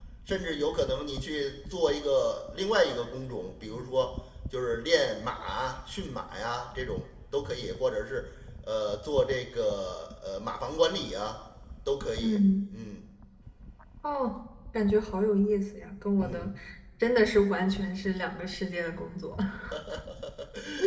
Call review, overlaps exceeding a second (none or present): none